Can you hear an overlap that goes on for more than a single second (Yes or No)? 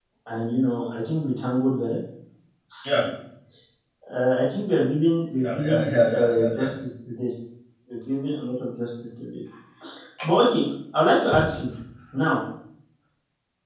Yes